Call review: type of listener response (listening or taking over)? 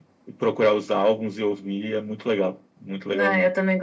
taking over